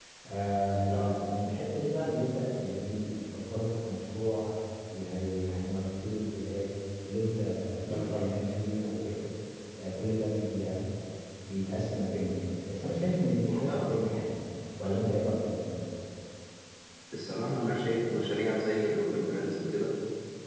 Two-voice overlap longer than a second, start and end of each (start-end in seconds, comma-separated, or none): none